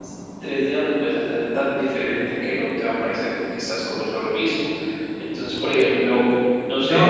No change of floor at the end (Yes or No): No